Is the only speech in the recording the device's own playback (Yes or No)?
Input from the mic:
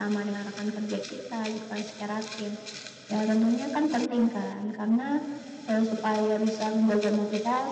Yes